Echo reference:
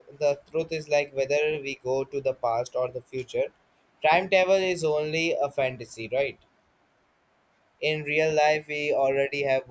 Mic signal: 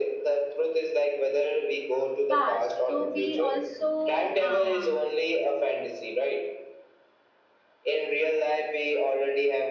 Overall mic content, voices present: both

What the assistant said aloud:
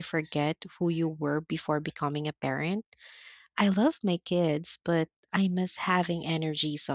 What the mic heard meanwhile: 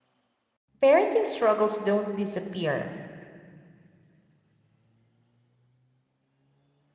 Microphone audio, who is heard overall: user only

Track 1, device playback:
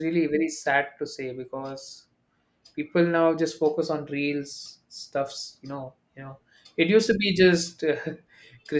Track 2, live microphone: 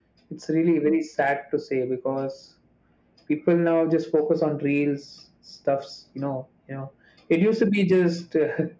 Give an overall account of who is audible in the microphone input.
echo only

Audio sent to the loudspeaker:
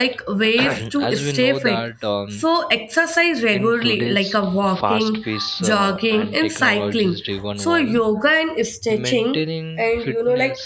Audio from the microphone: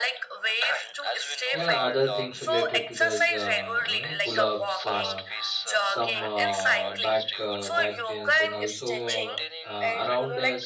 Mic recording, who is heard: both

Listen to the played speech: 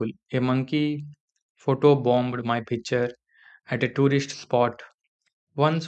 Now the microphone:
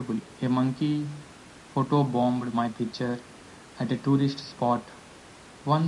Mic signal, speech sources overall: echo only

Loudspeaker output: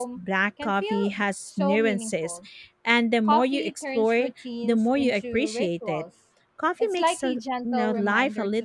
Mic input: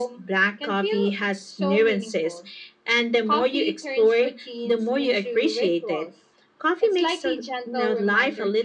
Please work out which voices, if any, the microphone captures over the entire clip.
echo only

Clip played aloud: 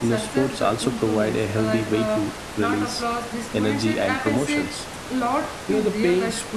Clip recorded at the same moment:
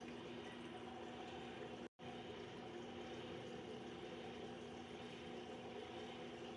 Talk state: neither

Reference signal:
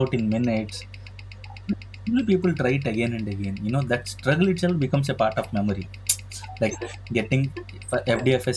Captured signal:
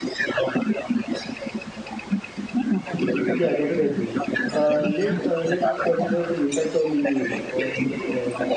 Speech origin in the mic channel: both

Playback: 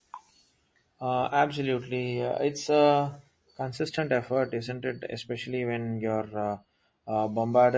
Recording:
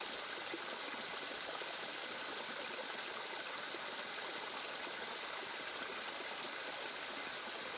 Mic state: neither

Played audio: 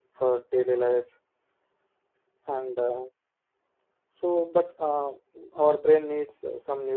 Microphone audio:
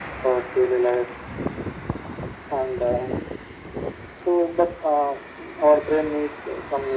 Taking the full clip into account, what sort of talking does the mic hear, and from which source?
echo only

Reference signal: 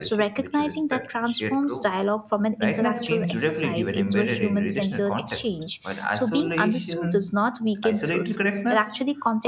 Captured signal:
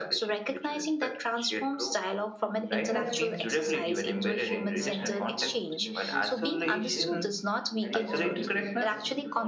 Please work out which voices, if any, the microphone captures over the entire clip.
both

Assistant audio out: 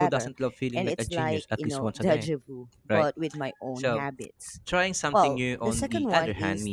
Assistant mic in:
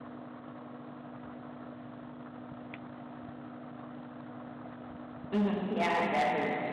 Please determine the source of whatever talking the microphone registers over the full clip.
user only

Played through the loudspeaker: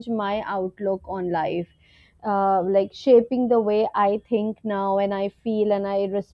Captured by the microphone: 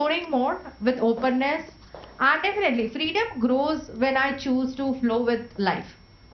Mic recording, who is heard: user only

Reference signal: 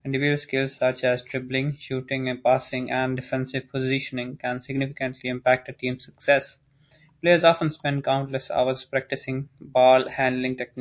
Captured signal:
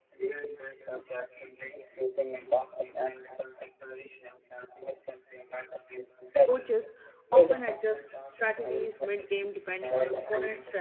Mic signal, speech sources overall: both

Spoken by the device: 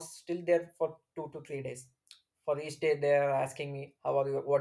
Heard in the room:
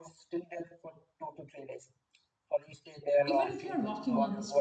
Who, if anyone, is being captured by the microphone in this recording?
both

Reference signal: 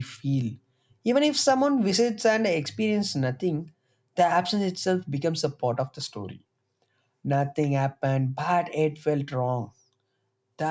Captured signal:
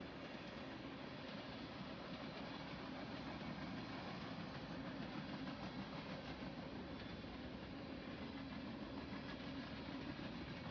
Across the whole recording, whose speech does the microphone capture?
neither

